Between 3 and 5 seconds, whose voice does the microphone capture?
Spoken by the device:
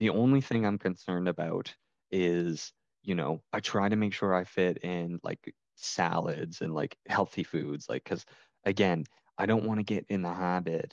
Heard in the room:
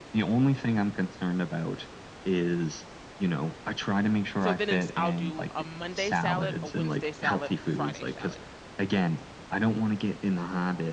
both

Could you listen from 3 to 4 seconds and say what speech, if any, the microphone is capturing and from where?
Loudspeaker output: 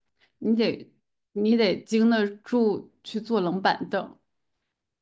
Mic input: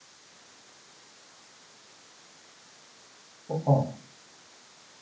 user only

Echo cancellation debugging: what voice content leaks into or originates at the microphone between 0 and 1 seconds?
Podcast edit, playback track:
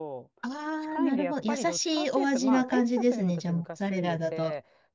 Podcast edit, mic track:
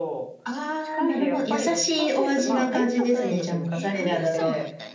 echo only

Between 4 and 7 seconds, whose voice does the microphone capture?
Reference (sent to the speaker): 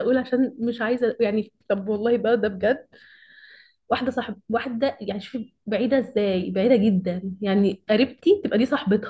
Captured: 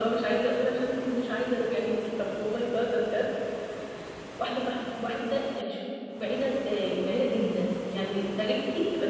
echo only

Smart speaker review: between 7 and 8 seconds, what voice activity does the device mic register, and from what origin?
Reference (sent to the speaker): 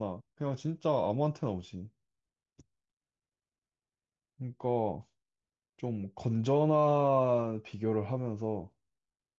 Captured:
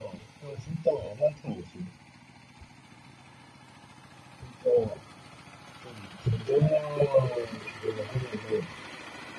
echo only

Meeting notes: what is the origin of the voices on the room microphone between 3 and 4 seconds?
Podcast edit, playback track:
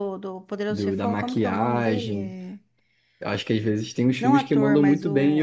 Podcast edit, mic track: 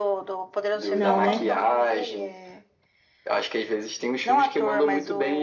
echo only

